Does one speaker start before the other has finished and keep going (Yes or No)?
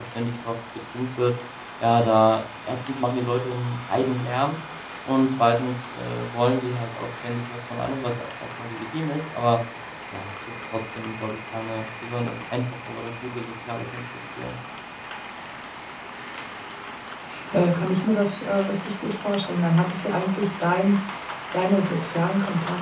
No